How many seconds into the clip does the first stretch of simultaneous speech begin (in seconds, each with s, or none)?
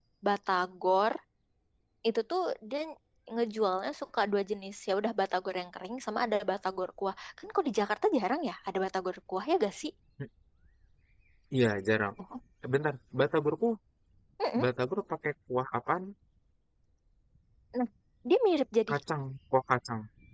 none